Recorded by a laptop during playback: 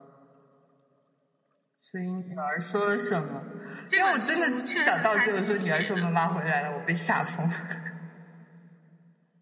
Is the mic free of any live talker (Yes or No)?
No